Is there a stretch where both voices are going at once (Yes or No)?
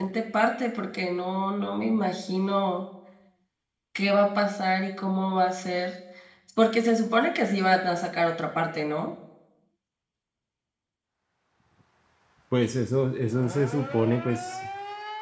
No